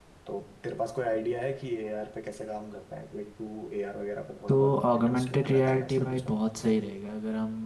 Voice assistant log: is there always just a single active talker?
No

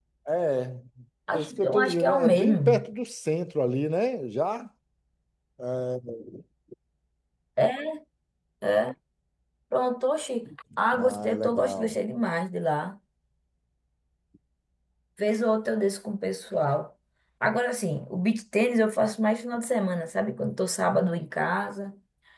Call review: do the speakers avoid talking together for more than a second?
No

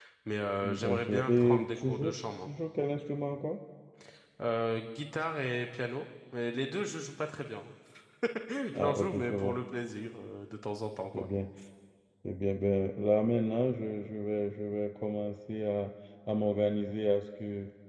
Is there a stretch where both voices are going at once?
Yes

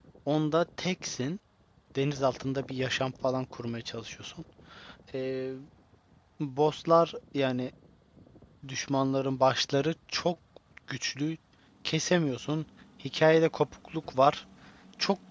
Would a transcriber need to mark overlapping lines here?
No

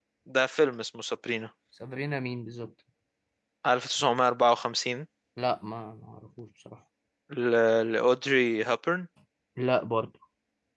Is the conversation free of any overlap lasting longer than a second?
Yes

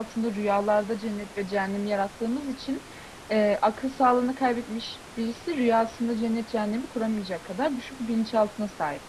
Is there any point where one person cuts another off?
No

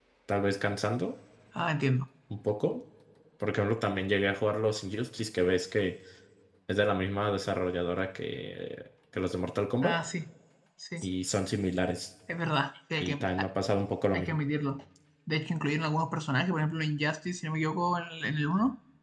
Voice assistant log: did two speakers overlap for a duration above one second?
No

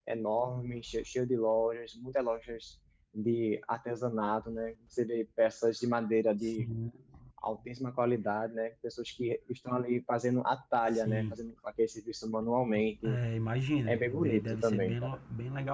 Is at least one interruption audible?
Yes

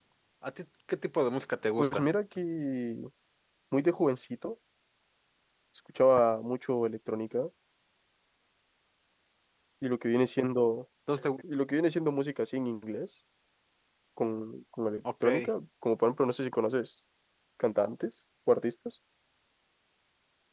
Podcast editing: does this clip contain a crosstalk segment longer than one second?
No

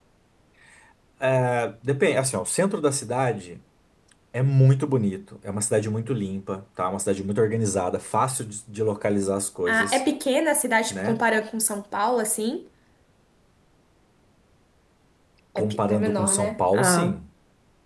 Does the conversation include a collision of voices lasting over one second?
Yes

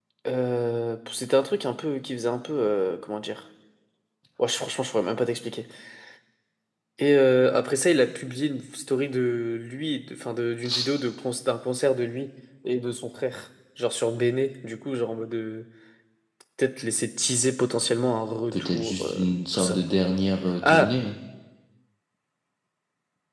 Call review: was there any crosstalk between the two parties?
Yes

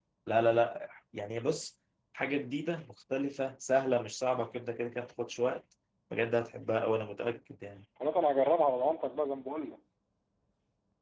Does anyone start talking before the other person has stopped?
No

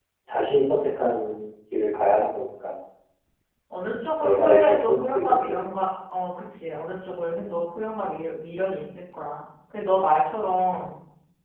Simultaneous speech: Yes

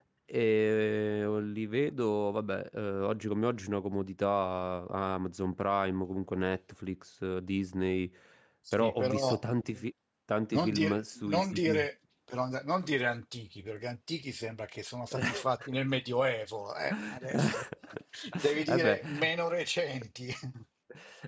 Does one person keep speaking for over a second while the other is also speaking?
Yes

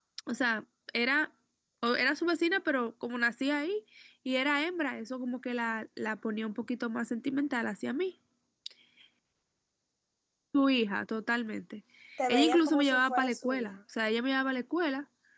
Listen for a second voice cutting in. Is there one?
Yes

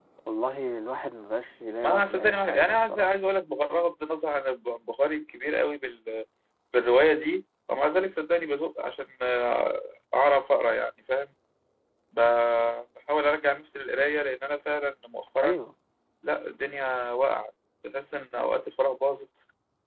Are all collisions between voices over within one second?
No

